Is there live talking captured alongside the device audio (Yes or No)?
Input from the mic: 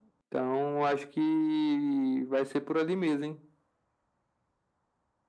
No